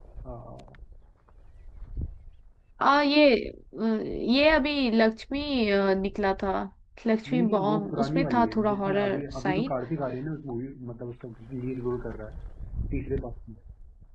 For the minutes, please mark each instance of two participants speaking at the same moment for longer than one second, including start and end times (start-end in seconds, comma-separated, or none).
7.3-9.7